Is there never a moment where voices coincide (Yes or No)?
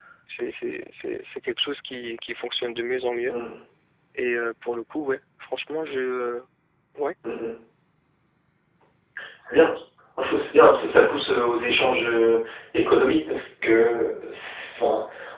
Yes